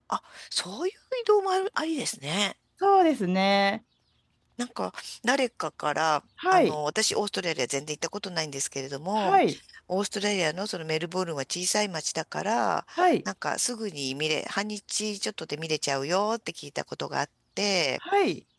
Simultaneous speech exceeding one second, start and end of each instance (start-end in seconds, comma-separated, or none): none